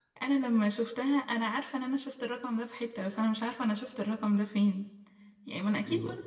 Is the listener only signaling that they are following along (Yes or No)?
Yes